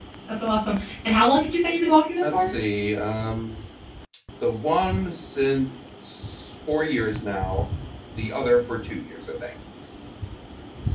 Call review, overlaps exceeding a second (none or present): none